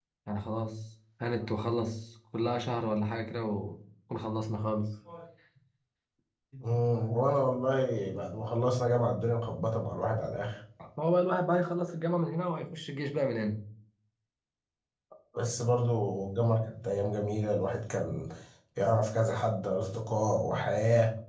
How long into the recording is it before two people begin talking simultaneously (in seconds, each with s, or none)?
none